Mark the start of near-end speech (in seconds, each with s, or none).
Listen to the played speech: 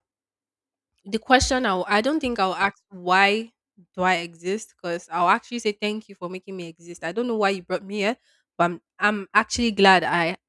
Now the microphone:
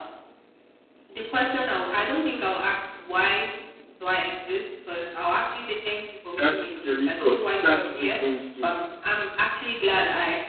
6.4 s